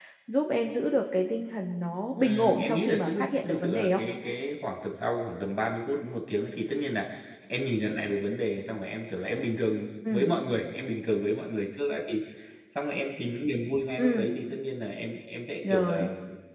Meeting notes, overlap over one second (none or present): present